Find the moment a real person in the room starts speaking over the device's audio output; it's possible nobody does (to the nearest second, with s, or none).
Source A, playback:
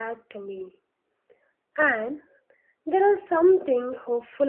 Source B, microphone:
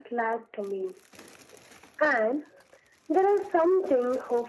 none